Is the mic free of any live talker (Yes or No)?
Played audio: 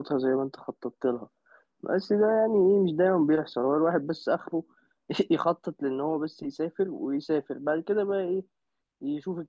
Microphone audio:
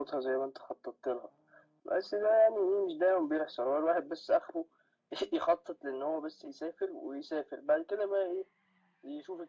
Yes